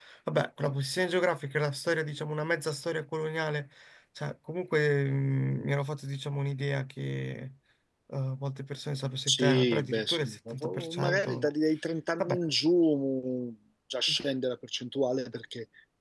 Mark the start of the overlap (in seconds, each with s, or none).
9.3 s